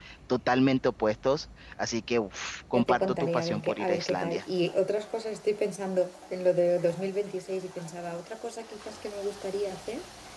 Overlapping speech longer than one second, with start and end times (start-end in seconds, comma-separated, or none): 2.7-4.4